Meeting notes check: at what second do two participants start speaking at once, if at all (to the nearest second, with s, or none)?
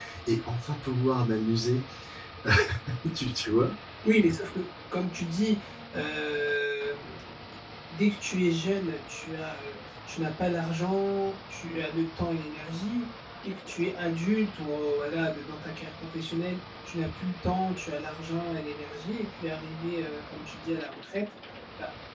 none